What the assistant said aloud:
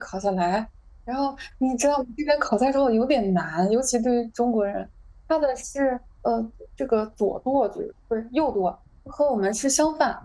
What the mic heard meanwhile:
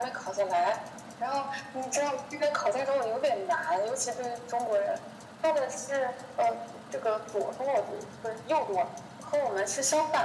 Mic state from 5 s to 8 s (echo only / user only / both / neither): echo only